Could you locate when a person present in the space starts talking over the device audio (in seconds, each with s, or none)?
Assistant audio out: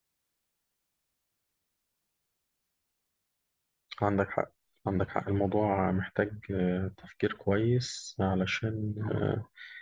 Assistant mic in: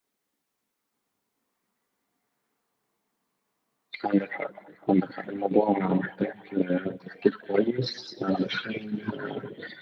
none